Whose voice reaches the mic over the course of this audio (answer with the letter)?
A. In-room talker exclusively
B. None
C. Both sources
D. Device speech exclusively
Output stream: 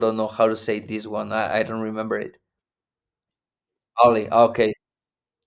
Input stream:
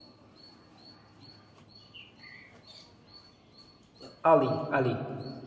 A